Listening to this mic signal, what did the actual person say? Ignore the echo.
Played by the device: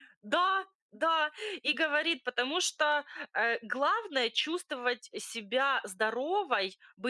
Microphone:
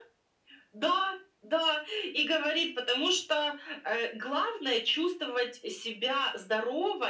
none

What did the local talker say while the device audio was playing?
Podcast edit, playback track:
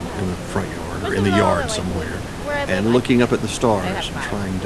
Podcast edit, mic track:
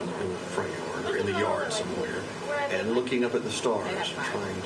none

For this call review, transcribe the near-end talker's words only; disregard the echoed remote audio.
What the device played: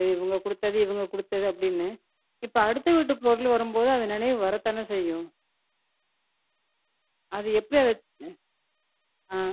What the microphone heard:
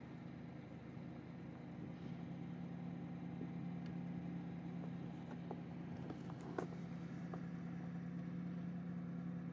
none

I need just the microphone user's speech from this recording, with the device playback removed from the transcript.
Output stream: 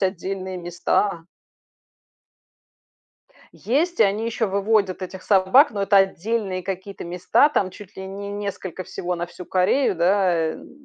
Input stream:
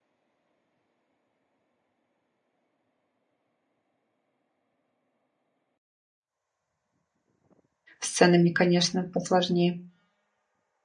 с ценами, конечно, посложнее,

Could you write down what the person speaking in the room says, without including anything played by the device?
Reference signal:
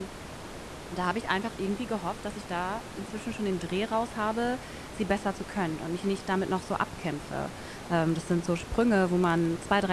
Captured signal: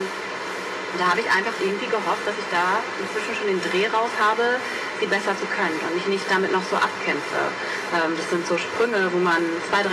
none

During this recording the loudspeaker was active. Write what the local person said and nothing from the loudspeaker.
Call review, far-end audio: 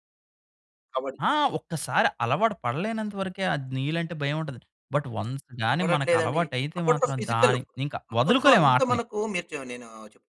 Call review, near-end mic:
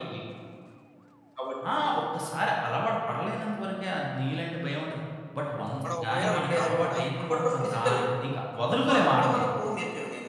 మనవొకవేళ ఉన్నా కూడా,

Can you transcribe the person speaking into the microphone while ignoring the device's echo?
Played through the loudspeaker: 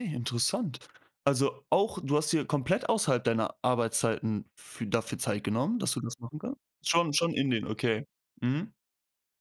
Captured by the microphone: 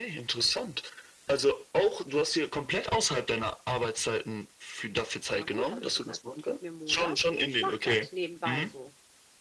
„Ja gut“, habe ich gesagt: „Gut, gib mir 'n Monat, ne, ich mache das nebenbei so.“

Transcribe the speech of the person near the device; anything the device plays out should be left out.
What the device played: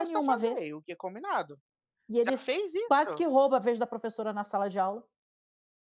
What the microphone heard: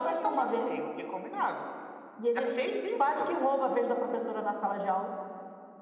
none

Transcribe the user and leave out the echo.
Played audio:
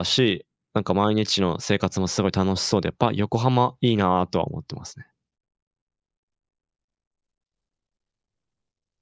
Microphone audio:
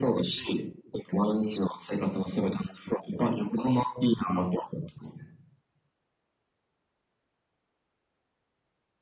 none

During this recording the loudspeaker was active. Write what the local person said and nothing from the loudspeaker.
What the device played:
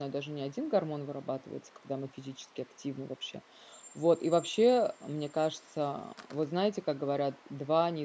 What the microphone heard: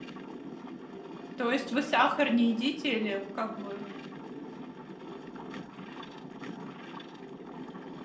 То есть вы сахар не едите или как вы?

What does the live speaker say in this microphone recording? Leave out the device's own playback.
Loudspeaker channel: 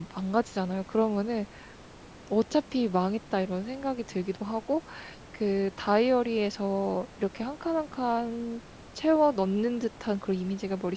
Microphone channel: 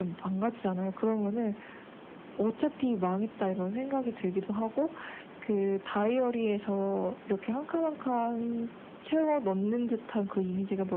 none

